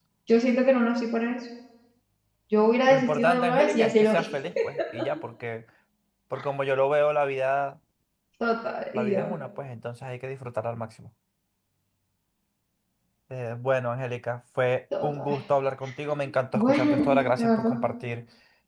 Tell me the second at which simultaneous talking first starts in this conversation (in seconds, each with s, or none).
2.9 s